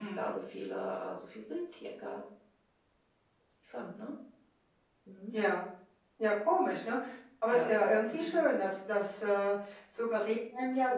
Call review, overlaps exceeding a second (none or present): none